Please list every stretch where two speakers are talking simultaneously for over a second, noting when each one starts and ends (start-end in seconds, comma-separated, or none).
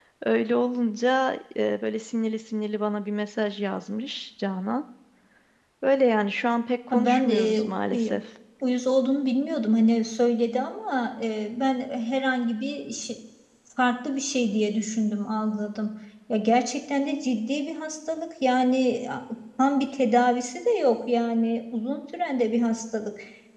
6.9-8.1